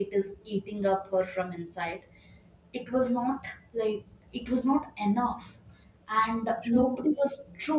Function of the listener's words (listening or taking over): listening